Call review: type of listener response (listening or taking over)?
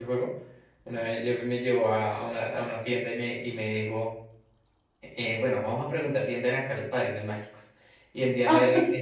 listening